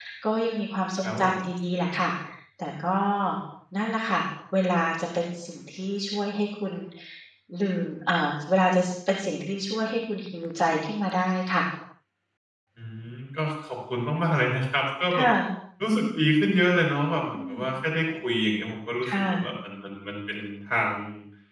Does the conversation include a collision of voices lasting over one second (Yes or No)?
No